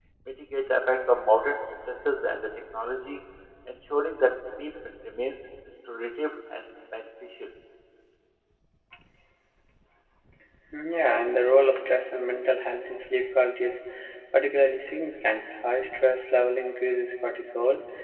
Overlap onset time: none

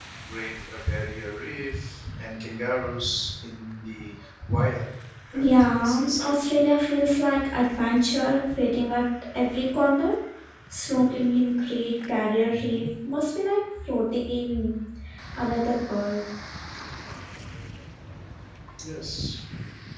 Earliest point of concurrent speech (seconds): 5 s

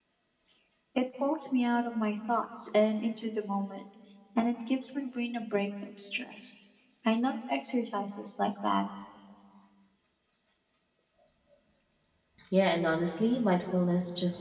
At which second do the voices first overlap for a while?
none

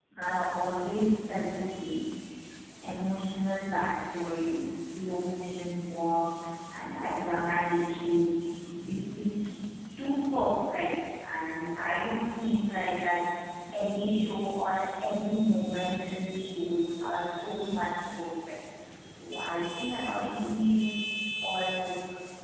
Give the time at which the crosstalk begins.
none

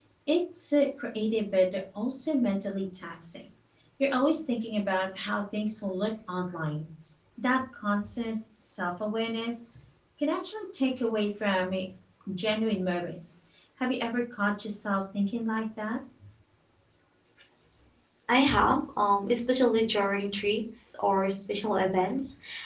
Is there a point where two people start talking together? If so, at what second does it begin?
none

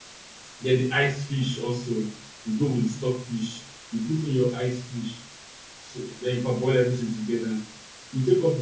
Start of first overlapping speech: none

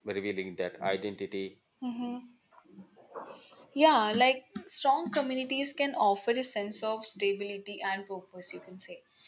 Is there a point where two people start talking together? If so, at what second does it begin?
none

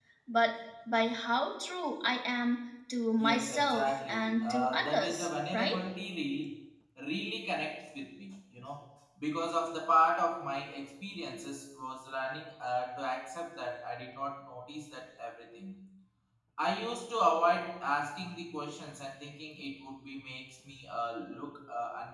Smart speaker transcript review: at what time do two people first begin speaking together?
3 s

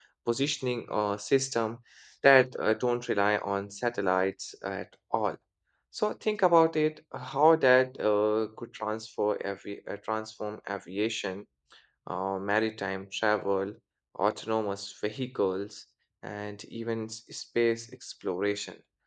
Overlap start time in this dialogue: none

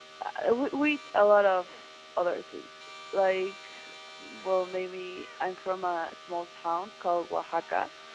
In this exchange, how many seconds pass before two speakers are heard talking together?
none

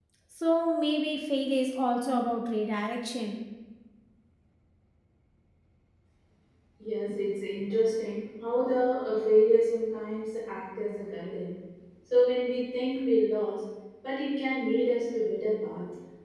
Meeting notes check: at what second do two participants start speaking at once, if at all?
none

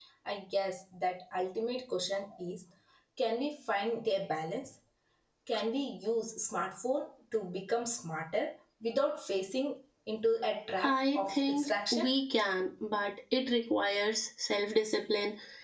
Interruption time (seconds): 11 s

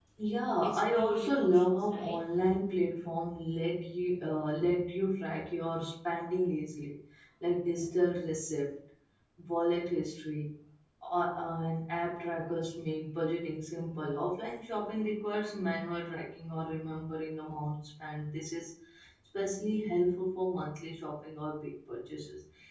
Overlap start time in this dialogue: 1 s

